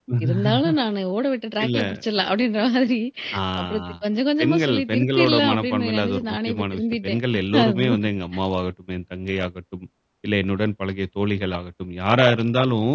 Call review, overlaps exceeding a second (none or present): present